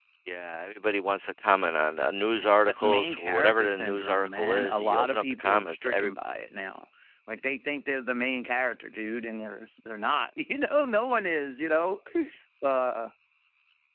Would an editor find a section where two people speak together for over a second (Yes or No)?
Yes